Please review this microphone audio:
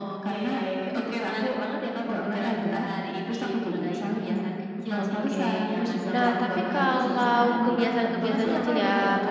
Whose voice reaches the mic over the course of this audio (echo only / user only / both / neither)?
both